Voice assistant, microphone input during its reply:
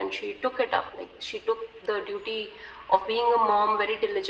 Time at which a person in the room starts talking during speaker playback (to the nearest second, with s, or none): none